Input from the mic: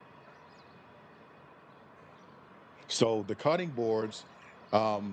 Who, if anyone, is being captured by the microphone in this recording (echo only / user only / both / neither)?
user only